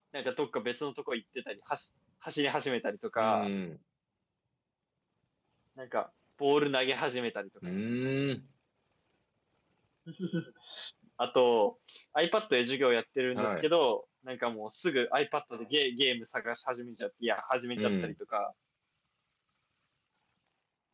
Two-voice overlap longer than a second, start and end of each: none

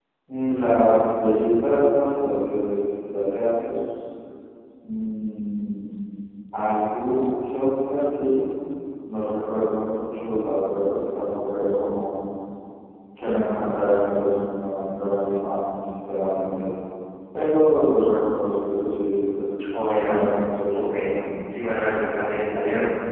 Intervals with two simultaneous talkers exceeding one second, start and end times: none

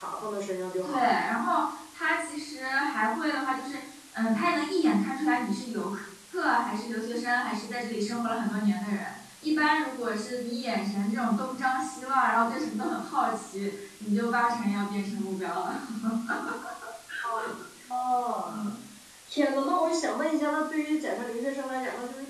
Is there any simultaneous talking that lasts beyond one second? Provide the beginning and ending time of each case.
none

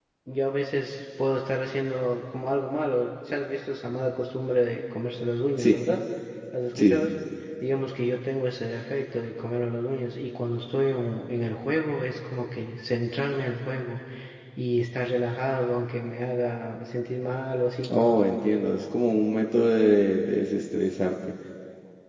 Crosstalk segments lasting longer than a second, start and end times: none

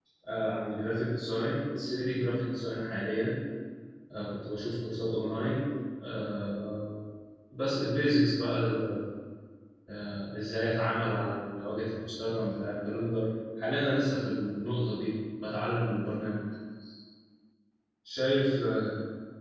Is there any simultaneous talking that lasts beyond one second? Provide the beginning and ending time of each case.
none

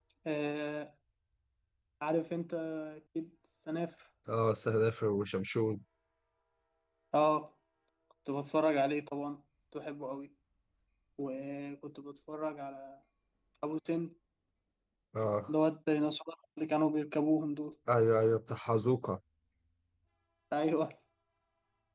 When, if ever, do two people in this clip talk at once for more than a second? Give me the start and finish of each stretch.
none

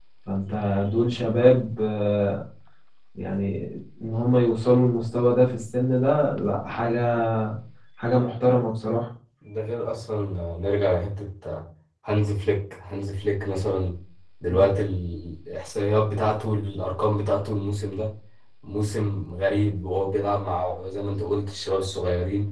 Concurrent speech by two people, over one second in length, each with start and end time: none

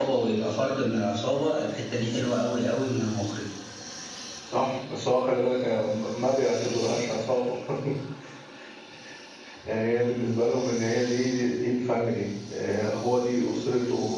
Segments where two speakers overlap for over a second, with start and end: none

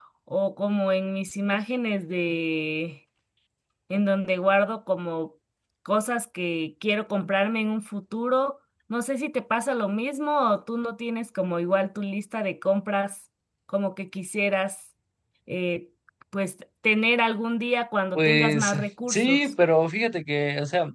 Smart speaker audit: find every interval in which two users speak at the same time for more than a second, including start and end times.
18.2-19.5

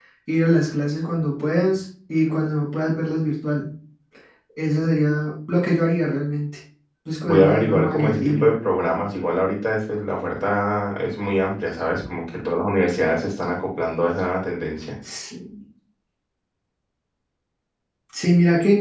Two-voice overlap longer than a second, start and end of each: 7.2-8.5

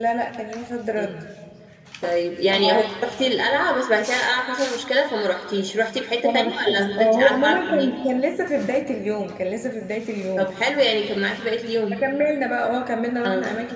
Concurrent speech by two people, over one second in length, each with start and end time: 6.2-7.9

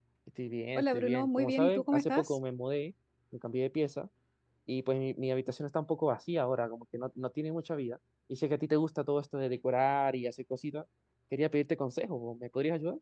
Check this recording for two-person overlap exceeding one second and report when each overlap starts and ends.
0.8-2.4

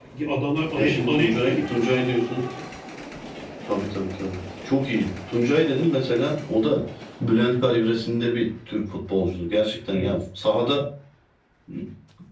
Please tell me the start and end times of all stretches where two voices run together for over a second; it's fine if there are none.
0.8-2.1

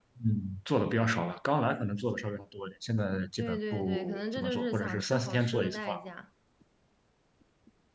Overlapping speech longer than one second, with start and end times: 3.4-5.9

